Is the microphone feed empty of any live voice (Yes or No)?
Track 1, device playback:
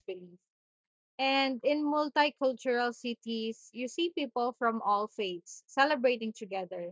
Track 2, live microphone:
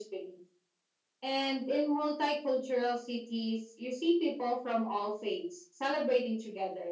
Yes